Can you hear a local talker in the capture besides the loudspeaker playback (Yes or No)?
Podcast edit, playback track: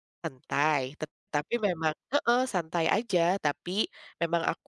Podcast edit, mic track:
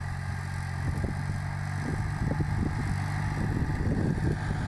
No